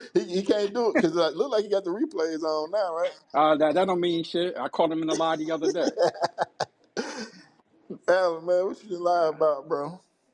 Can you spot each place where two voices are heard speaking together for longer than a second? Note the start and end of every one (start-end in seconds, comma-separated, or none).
none